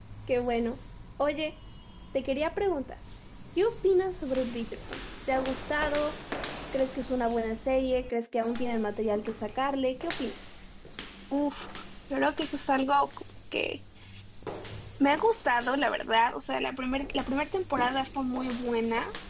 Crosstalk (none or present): none